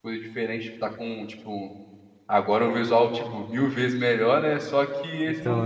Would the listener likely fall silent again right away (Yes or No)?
Yes